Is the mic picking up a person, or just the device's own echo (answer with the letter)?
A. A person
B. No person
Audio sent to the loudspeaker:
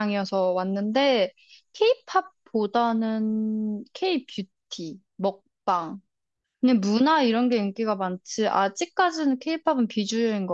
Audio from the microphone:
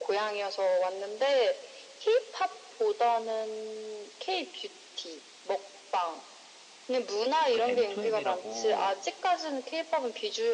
A